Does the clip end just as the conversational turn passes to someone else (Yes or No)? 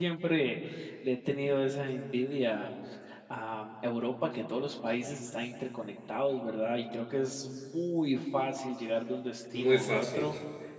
No